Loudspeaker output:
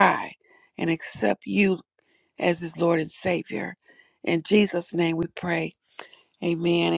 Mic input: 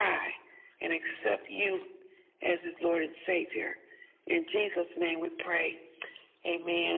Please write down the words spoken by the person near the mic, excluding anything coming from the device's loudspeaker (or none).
none